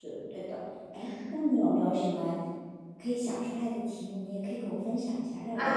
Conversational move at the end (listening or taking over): taking over